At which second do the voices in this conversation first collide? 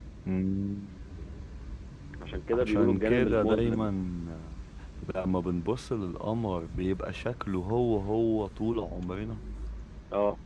2.6 s

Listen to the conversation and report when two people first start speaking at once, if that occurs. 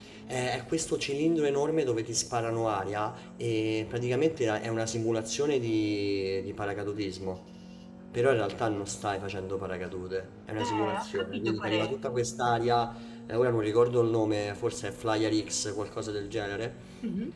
10.6 s

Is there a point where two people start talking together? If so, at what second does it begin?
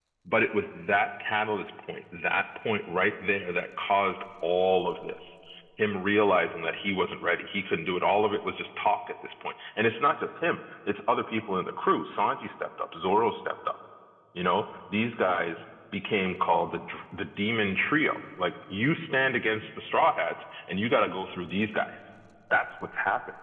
none

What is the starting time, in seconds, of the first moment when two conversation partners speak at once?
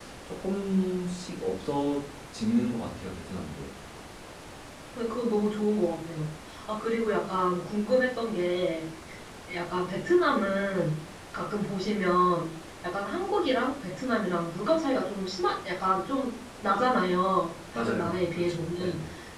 17.7 s

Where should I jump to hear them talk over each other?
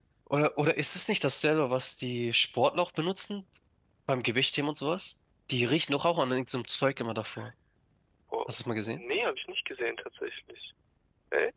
none

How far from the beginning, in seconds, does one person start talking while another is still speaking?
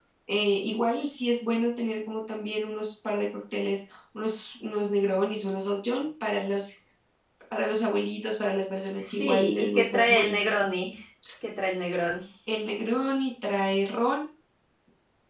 9.0 s

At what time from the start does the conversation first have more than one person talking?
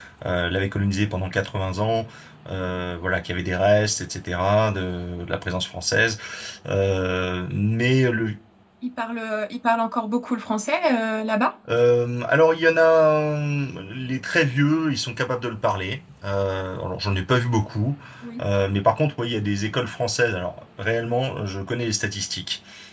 none

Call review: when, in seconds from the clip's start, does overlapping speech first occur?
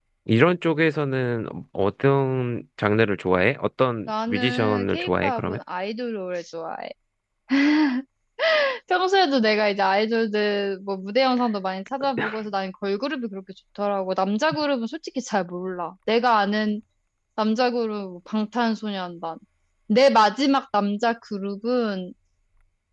4.1 s

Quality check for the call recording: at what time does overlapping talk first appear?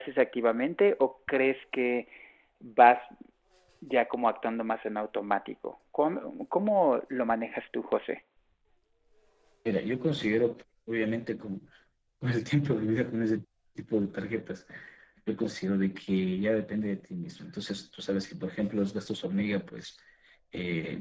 none

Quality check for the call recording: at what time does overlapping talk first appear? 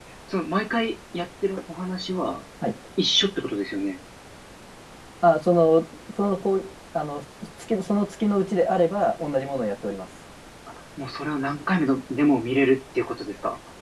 none

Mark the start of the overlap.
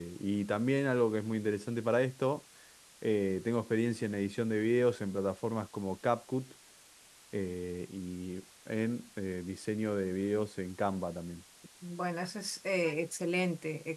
none

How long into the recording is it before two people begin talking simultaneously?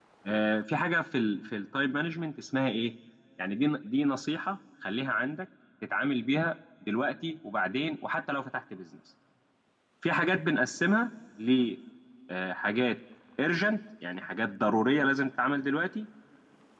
none

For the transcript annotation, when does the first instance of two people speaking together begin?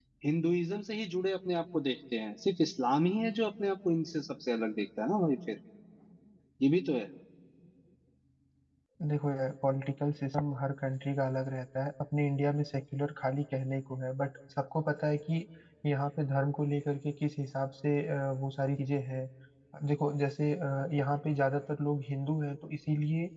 none

